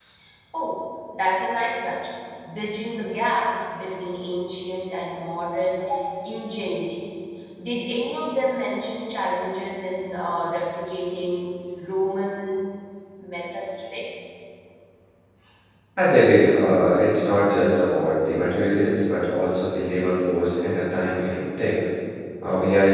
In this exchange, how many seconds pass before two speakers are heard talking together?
none

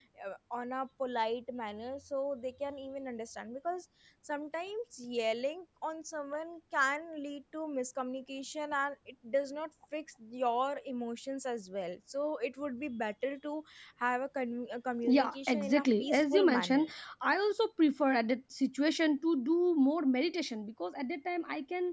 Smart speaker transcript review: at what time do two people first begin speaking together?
15.0 s

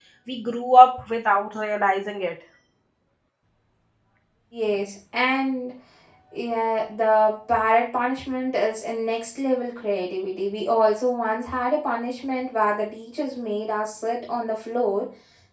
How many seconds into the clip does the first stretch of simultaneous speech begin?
none

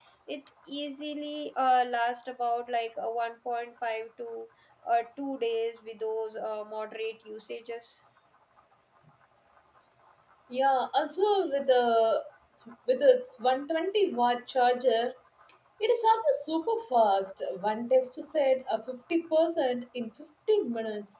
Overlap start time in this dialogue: none

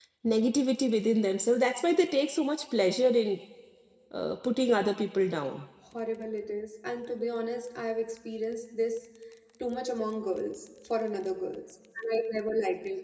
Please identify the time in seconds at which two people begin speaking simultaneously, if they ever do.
none

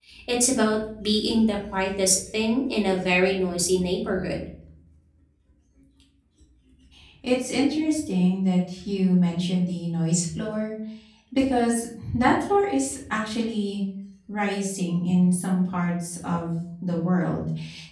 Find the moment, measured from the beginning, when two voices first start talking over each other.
none

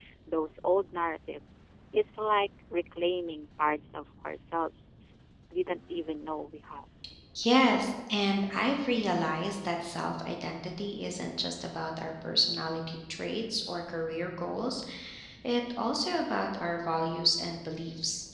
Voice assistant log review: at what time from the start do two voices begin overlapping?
none

